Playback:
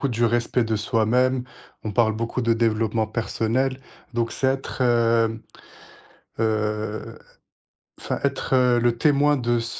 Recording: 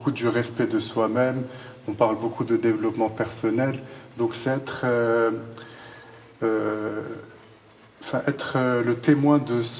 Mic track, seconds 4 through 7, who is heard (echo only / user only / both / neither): echo only